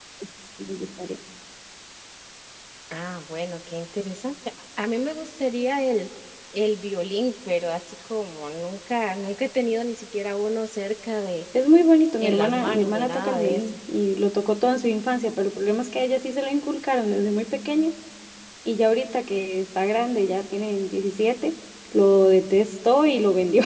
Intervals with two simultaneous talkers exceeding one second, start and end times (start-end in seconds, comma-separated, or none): 12.2-13.8